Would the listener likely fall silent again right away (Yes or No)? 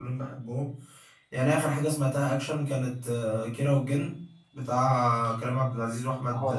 Yes